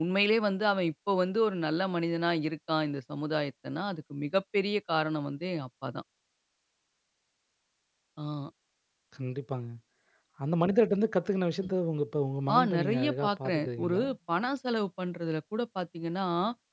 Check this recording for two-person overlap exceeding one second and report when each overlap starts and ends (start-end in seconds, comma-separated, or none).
12.5-14.0